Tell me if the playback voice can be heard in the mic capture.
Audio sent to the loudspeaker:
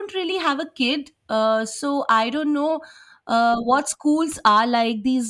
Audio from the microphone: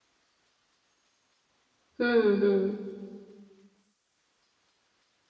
No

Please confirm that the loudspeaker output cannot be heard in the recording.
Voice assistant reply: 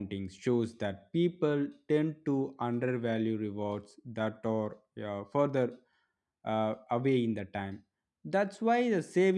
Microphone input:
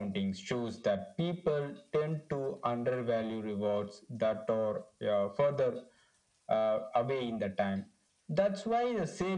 No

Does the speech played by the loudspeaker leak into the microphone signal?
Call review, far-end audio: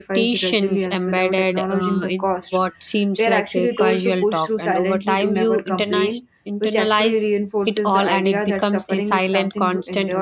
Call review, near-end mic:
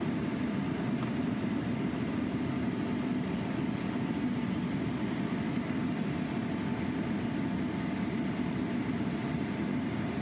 No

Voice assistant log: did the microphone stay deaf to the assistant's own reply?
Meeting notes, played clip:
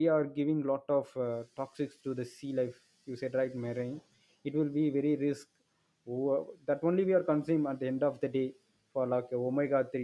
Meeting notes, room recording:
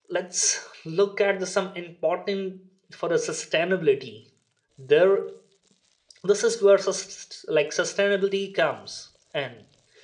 Yes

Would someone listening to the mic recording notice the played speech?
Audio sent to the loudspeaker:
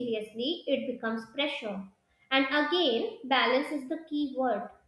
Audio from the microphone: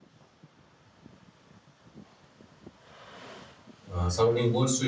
No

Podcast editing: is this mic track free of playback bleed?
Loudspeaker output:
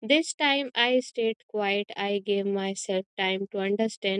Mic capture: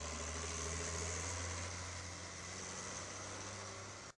Yes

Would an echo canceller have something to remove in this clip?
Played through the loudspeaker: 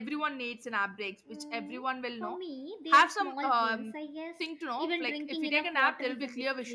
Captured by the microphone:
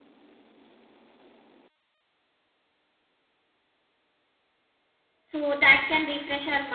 No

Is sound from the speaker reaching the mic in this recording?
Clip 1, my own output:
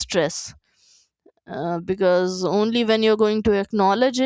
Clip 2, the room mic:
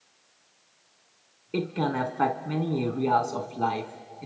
No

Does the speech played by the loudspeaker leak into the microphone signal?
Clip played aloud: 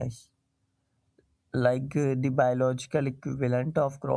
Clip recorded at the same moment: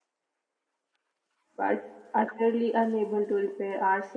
No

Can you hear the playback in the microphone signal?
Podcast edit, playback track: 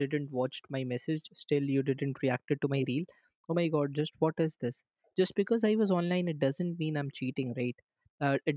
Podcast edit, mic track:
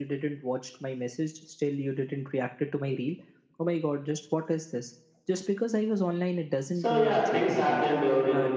Yes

